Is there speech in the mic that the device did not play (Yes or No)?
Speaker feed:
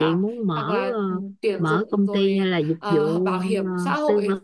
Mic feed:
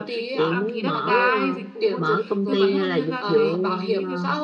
Yes